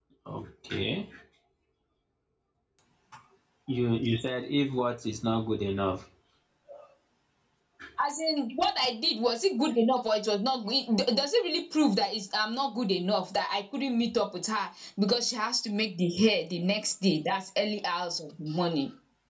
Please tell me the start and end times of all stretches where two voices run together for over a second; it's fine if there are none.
none

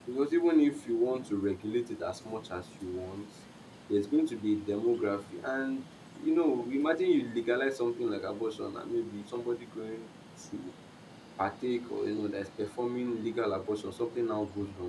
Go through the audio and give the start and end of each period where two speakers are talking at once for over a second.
none

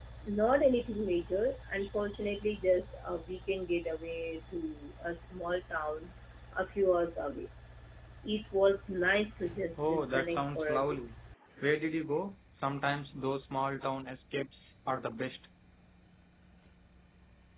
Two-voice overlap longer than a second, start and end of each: 9.8-11.0

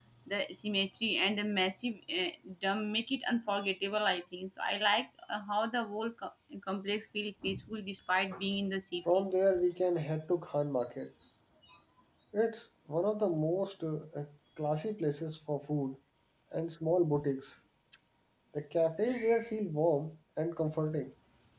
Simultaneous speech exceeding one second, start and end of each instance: none

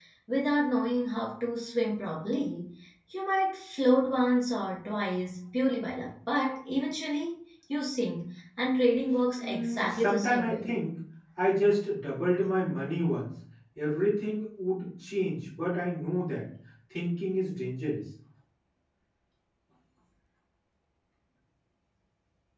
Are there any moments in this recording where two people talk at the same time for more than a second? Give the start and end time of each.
9.4-10.7

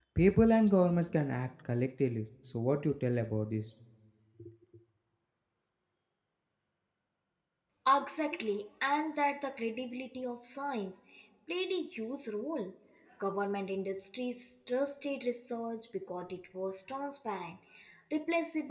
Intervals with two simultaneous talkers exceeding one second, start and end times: none

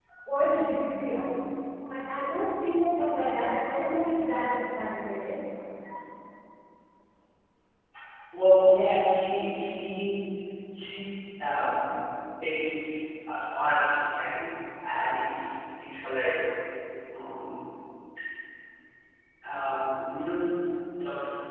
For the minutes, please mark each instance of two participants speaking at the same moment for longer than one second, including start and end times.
none

